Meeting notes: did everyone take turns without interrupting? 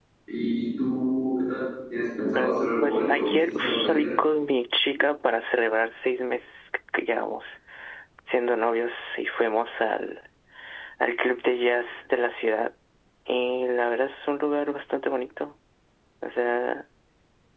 No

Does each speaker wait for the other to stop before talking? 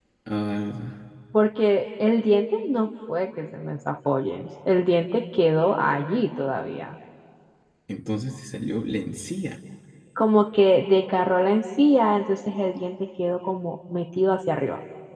Yes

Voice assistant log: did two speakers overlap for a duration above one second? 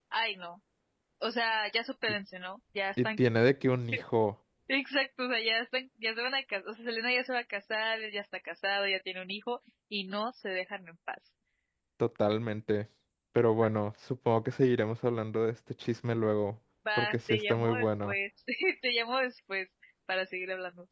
Yes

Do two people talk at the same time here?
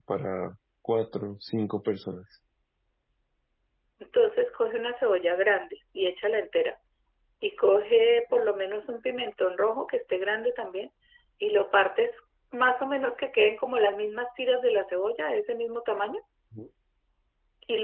No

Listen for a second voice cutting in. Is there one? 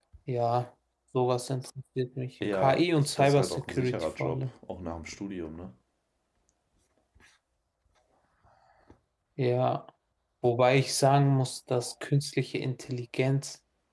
Yes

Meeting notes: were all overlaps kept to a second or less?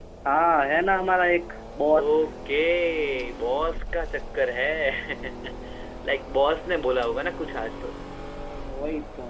Yes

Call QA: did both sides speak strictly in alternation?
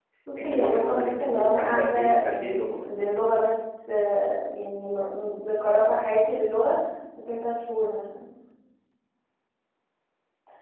No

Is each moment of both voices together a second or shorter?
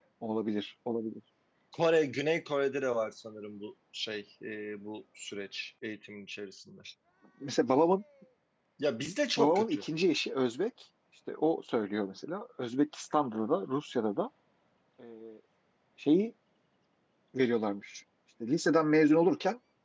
Yes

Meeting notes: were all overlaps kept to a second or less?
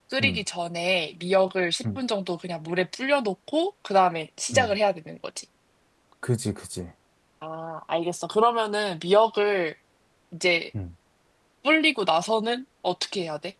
Yes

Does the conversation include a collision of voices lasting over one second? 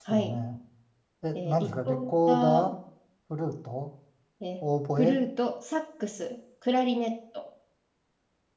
Yes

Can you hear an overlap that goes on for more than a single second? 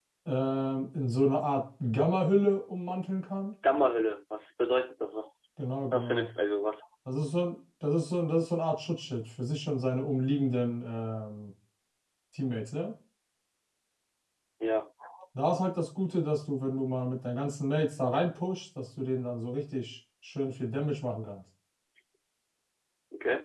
No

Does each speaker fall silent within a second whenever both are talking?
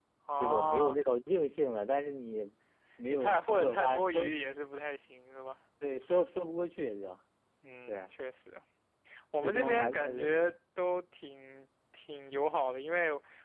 No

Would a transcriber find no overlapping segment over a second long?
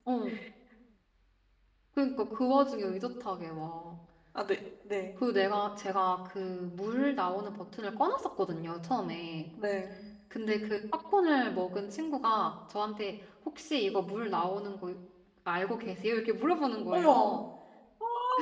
Yes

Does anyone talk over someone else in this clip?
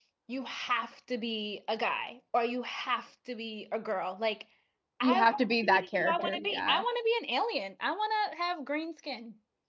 Yes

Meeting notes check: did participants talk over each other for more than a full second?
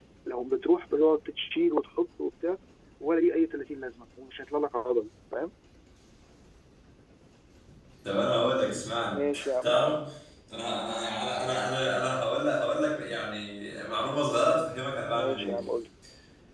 No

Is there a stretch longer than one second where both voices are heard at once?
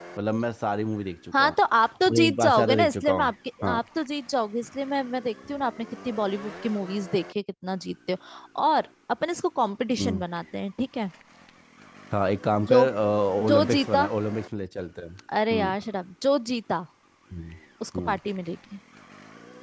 Yes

